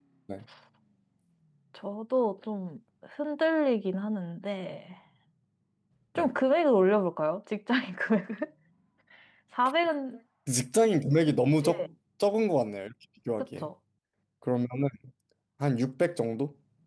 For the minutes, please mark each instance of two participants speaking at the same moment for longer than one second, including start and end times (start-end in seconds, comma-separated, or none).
none